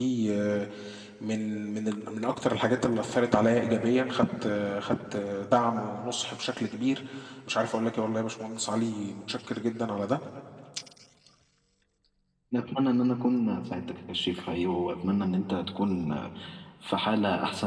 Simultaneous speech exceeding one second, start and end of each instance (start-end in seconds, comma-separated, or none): none